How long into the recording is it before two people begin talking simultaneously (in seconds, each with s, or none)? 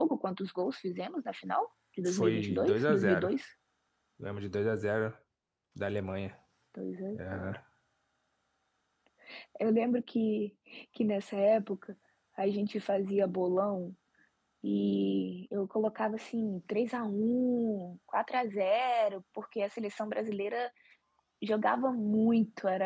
2.0 s